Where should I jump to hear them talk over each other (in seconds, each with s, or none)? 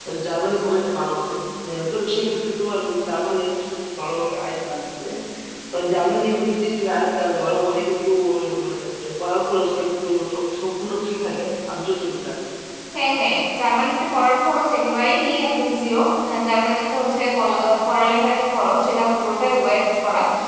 none